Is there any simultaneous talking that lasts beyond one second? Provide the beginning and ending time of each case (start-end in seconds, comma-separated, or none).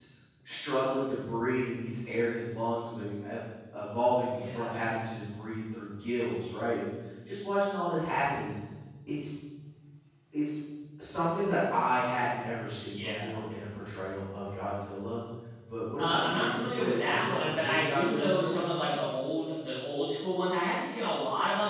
16.0-18.8